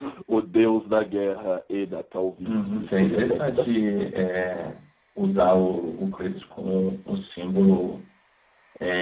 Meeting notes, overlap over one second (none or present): present